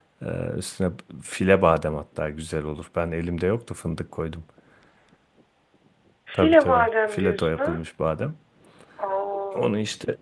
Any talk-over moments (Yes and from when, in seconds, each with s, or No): Yes, from 6.3 s